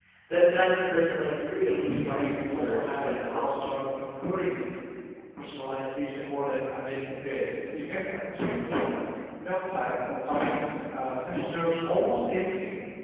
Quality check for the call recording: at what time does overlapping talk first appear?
1.6 s

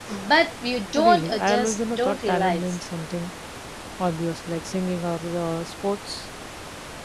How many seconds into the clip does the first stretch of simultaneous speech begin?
1.1 s

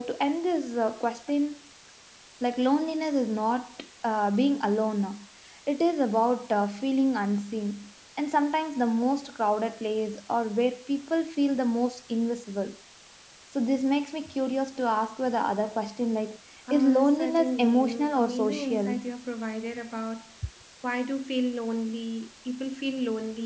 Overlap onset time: 16.7 s

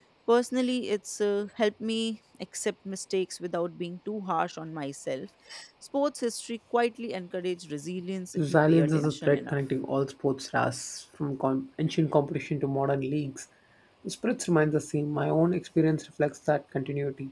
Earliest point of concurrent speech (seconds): 8.4 s

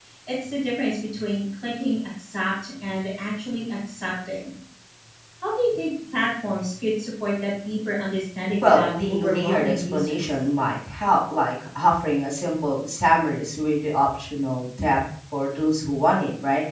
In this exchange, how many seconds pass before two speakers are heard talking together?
8.6 s

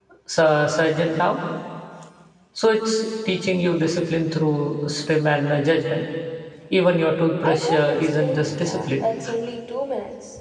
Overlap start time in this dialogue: 7.4 s

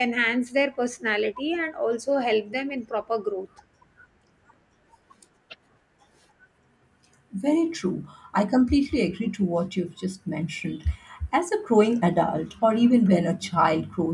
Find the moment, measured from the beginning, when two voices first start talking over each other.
none

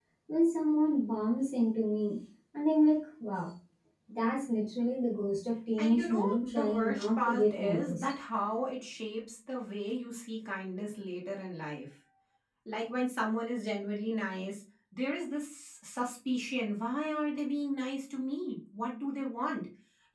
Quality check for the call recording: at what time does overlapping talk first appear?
5.8 s

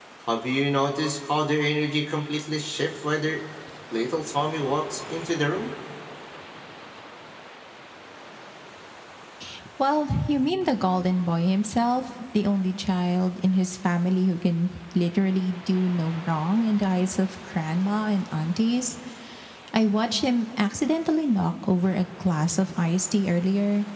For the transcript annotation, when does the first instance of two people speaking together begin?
none

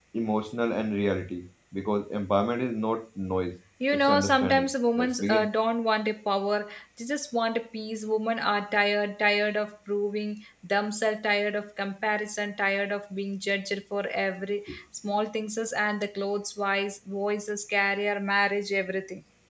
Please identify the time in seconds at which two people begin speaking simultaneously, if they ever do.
3.8 s

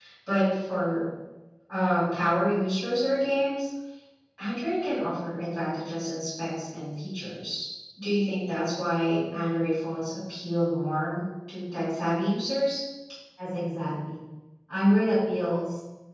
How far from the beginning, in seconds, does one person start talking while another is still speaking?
none

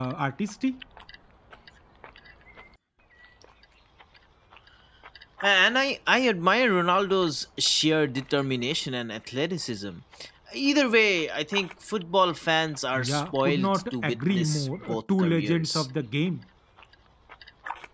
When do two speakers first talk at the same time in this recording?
12.9 s

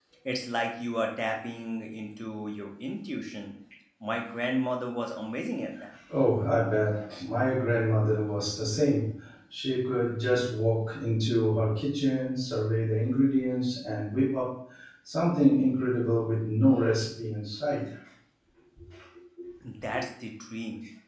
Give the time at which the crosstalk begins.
none

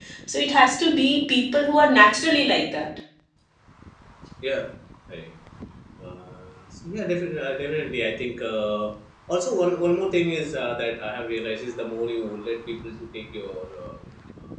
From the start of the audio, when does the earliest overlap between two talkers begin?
none

